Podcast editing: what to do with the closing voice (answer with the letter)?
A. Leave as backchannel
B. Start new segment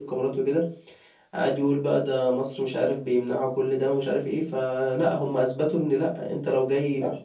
A